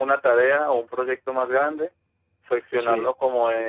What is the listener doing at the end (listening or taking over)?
listening